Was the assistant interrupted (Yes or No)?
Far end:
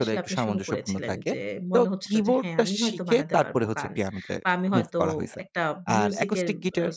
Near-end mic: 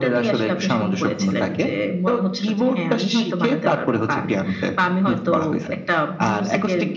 Yes